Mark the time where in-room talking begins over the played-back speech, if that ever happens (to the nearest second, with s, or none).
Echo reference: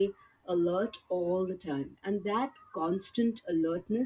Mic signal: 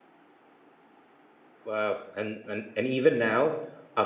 2 s